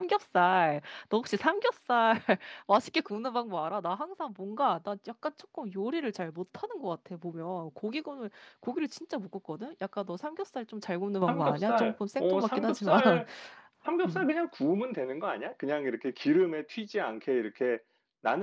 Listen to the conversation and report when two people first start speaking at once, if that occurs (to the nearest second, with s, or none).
11 s